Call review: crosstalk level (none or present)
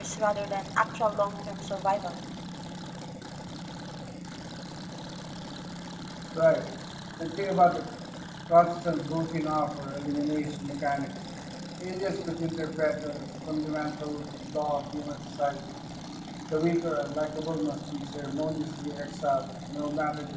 none